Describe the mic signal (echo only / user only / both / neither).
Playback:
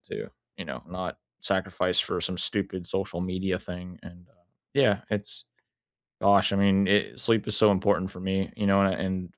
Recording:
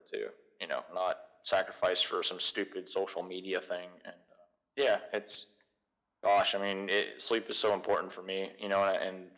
echo only